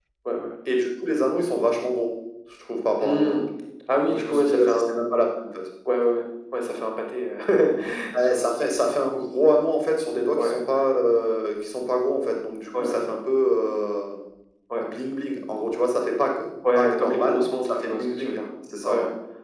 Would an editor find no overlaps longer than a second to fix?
No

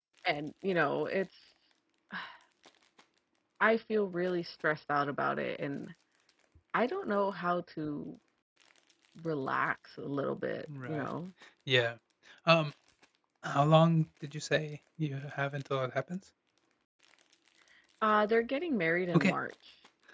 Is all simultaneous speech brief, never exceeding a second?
Yes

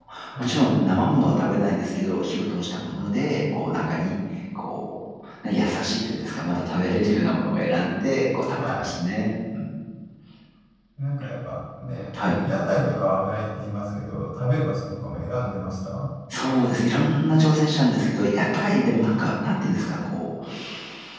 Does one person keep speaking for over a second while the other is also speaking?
No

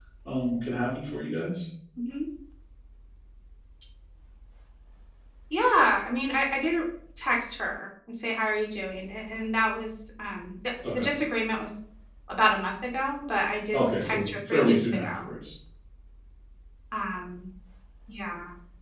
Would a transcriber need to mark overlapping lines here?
Yes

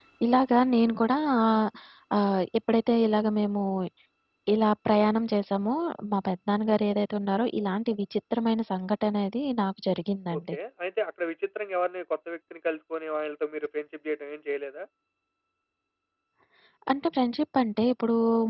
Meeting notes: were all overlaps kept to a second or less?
Yes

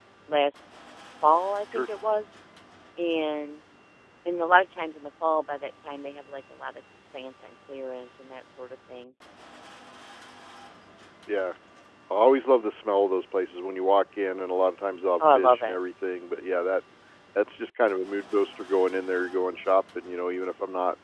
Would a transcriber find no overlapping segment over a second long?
Yes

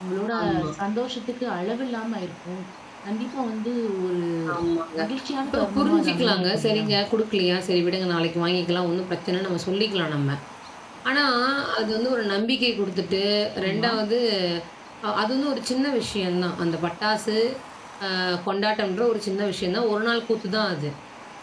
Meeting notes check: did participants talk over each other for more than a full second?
Yes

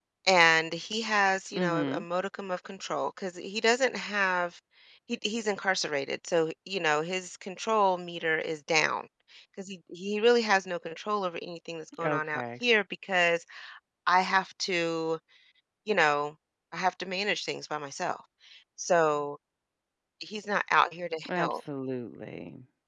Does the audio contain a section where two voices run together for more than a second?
No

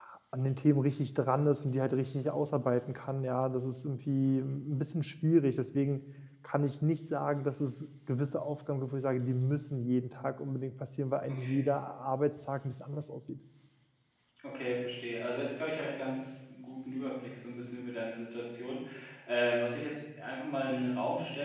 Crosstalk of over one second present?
No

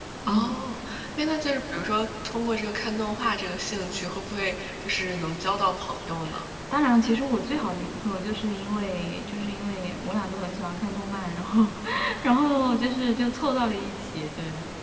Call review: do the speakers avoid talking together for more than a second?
Yes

